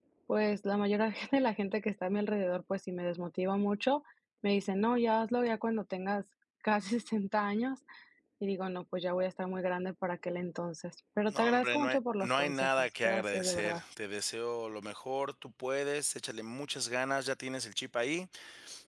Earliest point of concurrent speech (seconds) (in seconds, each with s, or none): 11.3 s